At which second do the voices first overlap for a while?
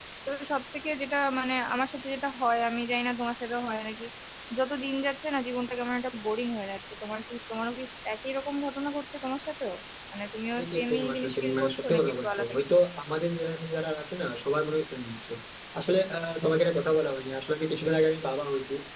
11 s

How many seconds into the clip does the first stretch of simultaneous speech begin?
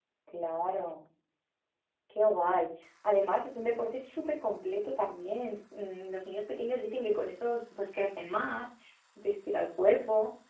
none

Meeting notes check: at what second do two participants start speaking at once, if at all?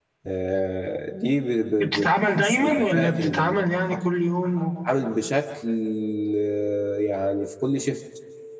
2 s

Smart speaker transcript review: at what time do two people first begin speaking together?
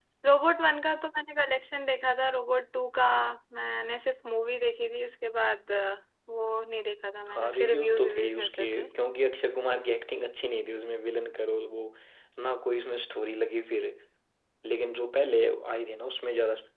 7 s

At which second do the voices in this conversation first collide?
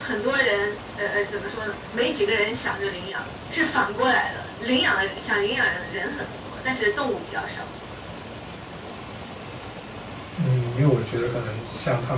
none

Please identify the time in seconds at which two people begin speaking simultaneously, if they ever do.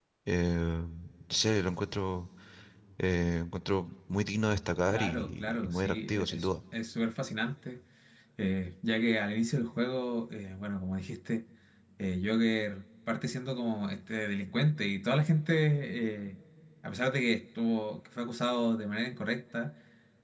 5 s

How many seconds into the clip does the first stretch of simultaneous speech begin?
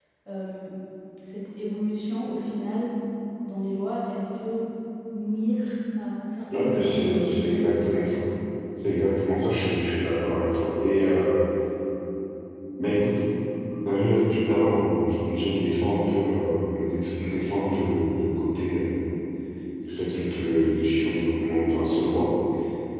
7 s

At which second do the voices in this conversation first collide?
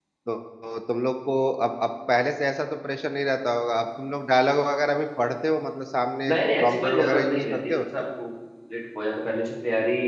6 s

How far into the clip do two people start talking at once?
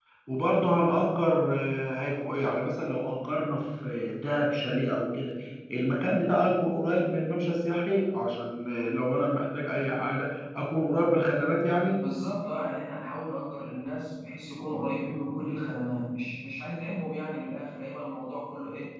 none

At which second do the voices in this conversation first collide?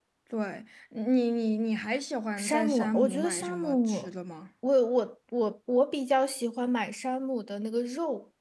2 s

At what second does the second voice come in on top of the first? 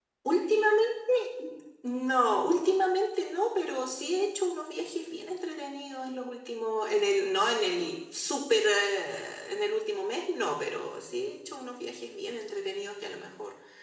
none

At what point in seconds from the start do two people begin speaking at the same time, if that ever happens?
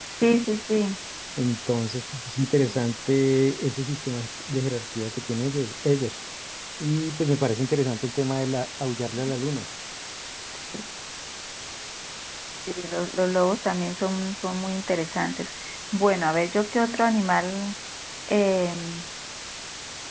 none

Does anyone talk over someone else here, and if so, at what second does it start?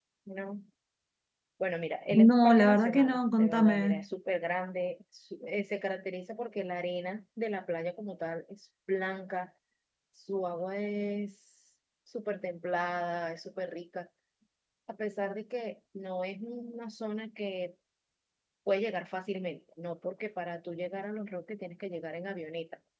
2 s

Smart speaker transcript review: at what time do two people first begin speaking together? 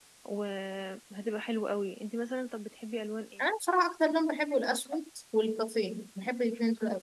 none

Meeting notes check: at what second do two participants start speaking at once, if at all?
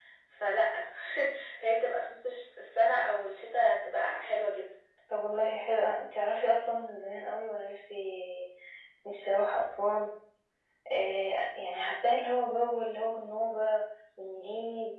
none

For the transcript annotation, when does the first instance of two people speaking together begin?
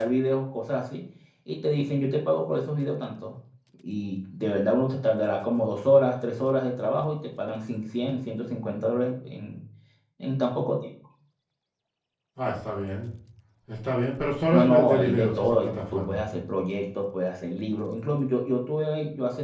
15 s

